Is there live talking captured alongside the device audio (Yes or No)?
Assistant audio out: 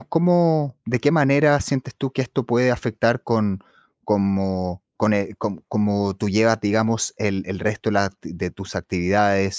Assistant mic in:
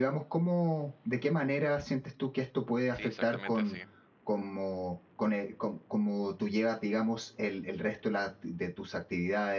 Yes